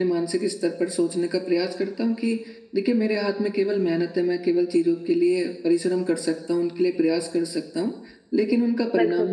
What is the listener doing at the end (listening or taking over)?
listening